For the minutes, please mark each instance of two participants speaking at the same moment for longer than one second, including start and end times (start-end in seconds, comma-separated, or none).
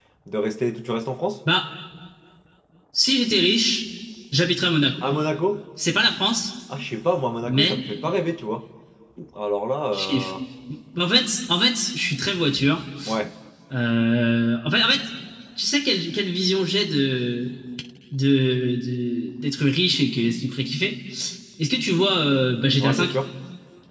none